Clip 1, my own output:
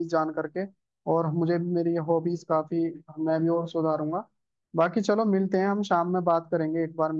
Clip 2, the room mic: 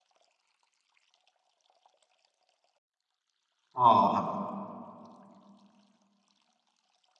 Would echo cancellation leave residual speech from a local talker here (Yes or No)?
Yes